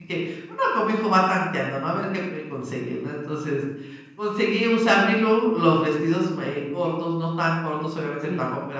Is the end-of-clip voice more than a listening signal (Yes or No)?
No